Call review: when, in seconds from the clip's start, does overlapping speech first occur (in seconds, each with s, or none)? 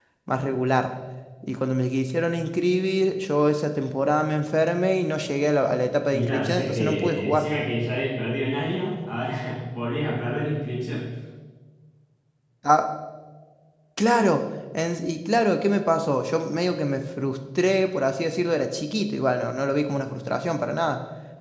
6.1 s